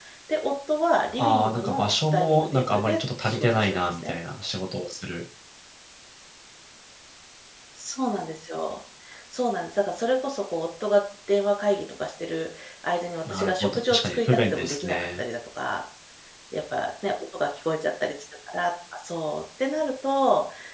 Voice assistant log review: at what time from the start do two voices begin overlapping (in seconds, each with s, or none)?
1.2 s